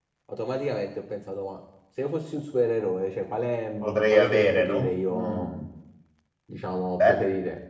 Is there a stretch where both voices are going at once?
Yes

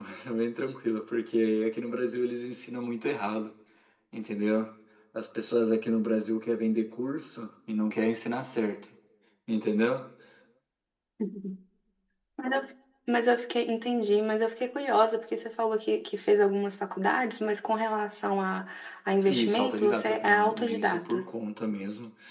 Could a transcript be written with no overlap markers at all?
No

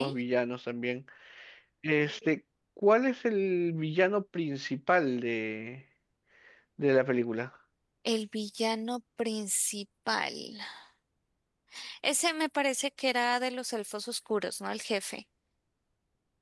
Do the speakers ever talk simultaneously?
No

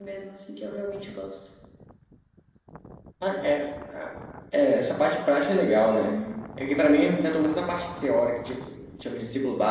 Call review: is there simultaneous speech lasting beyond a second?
No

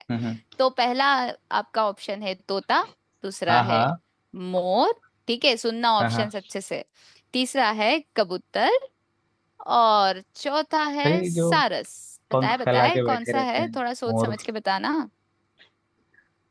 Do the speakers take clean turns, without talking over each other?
No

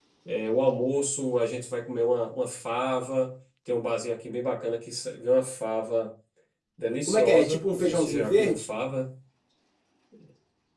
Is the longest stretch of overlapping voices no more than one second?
No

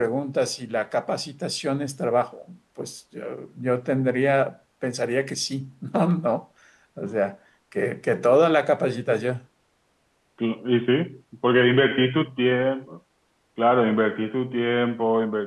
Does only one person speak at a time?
Yes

